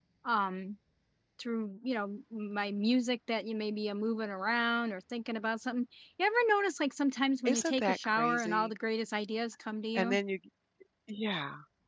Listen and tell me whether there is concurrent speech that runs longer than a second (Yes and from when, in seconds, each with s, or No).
Yes, from 7.5 s